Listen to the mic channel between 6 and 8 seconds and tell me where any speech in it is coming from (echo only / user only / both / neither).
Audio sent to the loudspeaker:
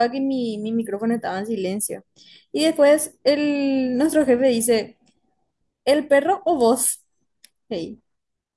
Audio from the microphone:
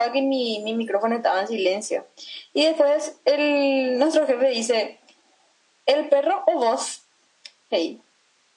echo only